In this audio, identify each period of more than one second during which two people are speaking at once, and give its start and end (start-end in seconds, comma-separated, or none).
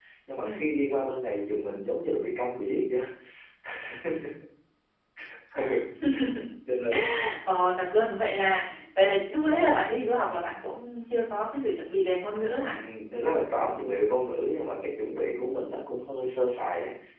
none